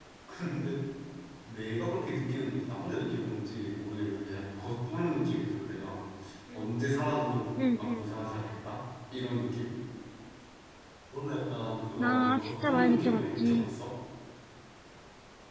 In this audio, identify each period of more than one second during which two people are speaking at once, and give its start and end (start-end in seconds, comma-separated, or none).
12.0-13.8